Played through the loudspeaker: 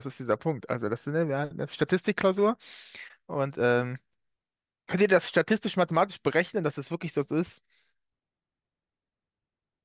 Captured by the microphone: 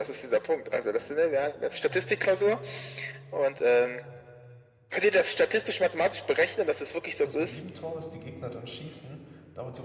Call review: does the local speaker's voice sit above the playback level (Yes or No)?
No